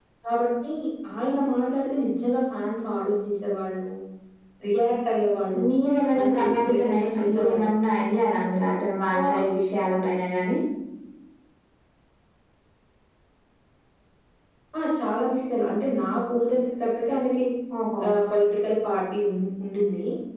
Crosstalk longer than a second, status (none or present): present